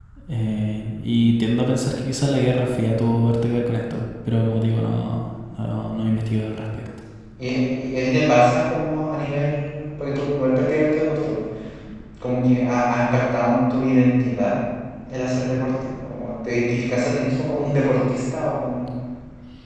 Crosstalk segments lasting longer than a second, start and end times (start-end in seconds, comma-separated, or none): none